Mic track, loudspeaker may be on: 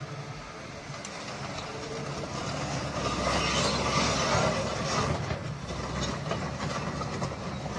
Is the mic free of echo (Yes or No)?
Yes